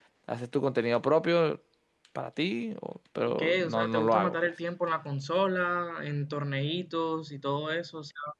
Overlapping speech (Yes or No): Yes